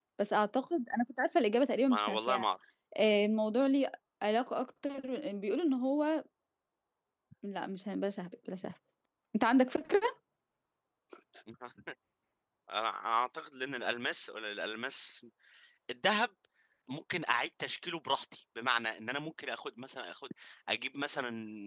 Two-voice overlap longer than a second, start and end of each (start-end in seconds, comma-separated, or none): none